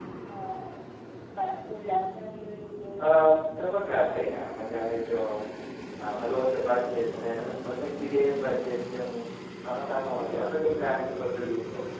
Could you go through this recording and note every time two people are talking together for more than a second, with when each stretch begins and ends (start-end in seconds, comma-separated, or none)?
none